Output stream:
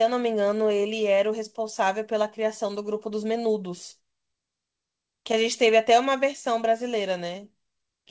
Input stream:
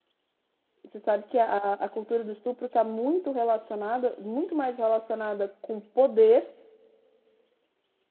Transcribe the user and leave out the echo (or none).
Você sabe que a, a cultura do estupro está muito relacionada, muito mais relacionada com poder